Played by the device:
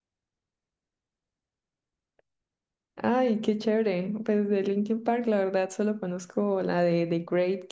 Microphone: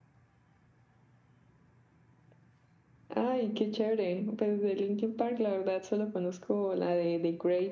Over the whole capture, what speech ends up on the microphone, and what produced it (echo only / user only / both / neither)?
echo only